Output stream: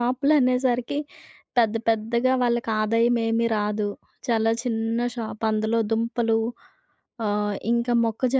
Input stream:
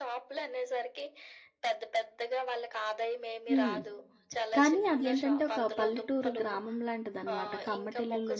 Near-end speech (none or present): present